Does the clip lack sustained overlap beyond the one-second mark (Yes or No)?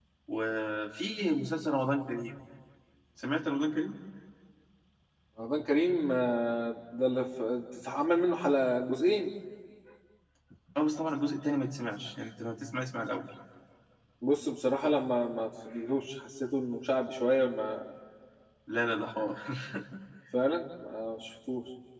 Yes